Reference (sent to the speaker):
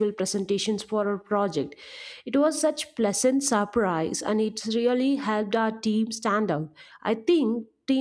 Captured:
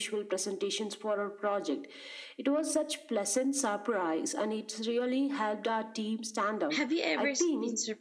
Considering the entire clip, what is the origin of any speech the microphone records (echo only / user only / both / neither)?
both